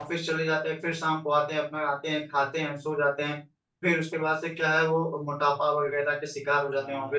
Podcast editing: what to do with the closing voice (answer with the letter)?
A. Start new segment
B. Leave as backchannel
A